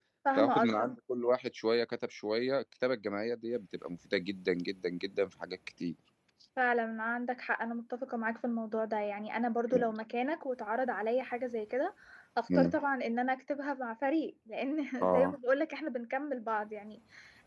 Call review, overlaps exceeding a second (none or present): none